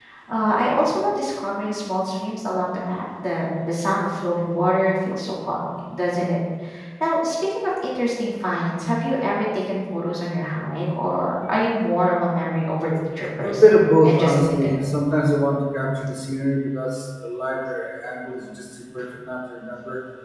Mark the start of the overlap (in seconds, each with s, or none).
13.4 s